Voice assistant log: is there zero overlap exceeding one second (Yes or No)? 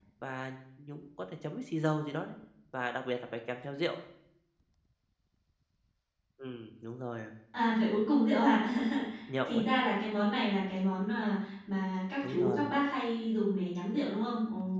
Yes